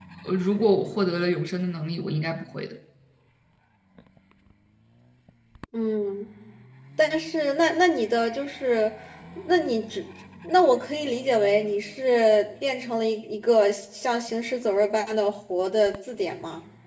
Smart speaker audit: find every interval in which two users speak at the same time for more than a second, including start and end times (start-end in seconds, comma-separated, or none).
none